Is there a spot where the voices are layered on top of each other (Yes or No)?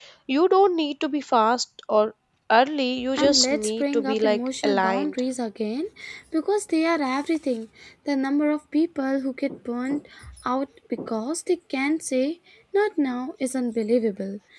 Yes